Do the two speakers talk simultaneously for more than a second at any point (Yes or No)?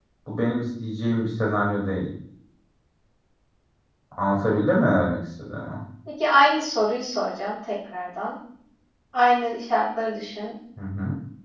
No